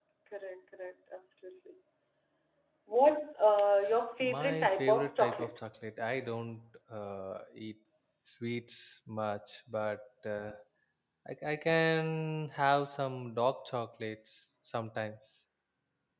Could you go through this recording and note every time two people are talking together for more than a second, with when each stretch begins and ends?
4.2-5.6

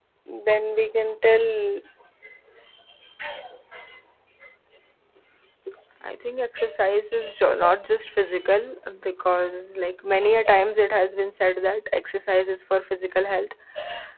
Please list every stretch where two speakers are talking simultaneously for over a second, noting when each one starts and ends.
none

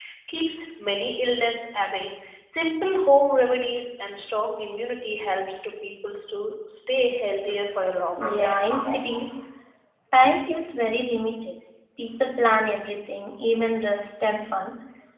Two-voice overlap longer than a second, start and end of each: none

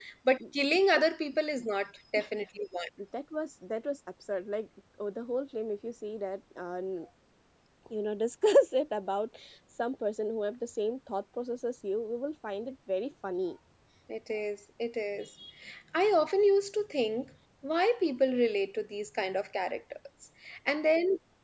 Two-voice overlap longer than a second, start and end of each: none

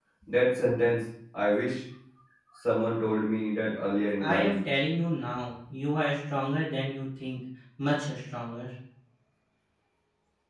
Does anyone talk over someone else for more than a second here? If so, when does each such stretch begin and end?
none

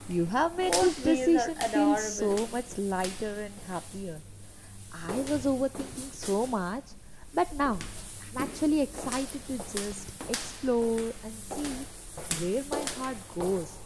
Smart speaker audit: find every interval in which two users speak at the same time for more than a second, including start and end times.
0.6-2.4

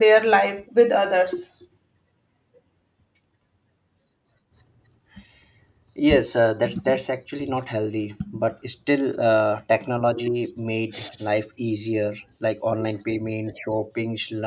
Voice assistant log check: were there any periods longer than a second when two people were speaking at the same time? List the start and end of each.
none

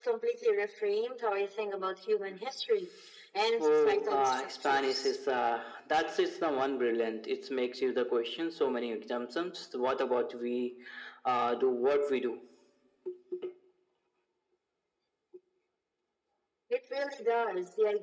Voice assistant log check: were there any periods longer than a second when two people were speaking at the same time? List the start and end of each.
3.6-5.1

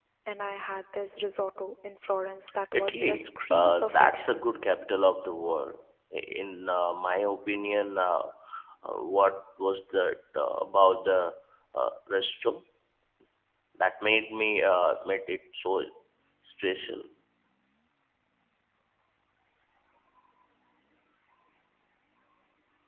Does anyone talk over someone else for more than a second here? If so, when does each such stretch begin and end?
2.7-4.4

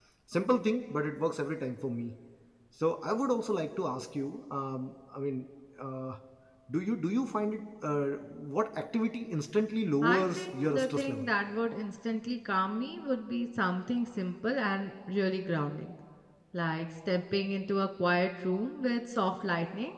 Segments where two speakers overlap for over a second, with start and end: 10.0-11.3

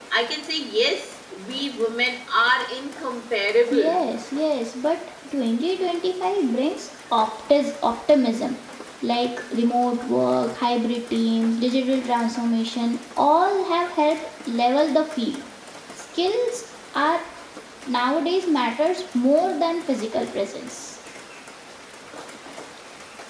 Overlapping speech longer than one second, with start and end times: none

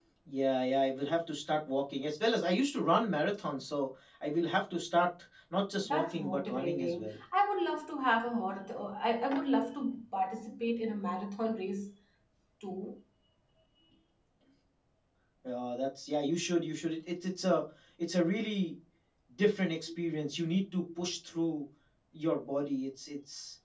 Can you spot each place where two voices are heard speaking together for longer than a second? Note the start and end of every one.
5.8-7.1

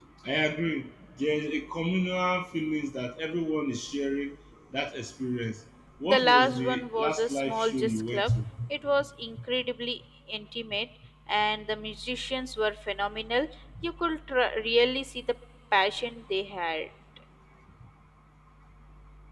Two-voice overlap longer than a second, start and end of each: 6.0-8.3

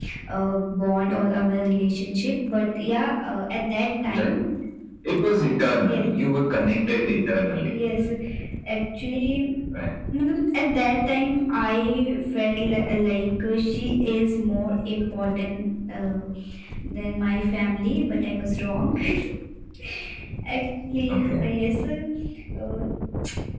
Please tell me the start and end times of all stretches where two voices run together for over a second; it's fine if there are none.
none

